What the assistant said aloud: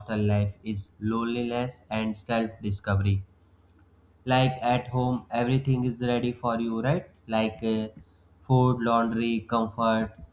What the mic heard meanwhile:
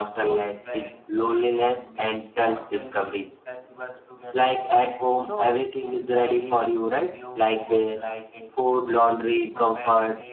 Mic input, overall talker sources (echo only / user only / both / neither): both